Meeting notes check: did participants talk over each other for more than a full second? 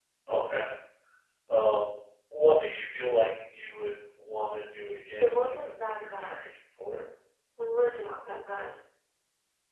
Yes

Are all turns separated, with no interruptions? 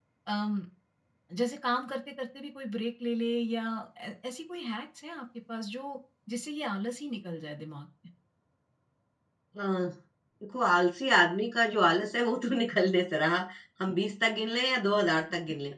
Yes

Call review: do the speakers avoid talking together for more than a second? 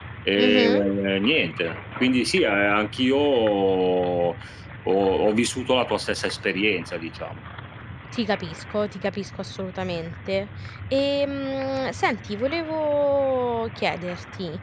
Yes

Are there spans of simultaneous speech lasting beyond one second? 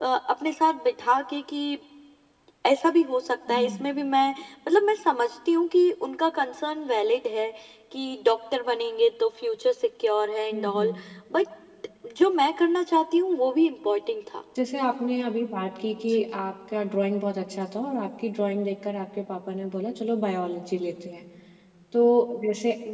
No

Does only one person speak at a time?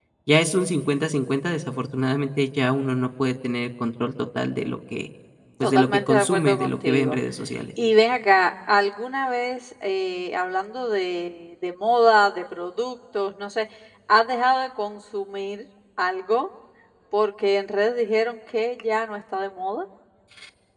No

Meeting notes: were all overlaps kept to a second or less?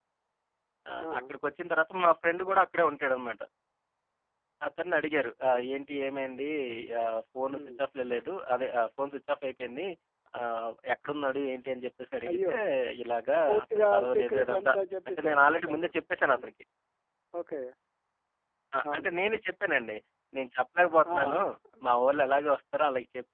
No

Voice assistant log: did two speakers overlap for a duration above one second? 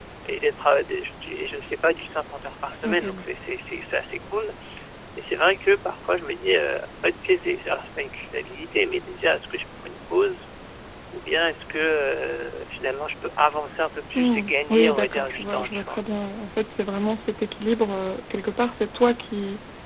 Yes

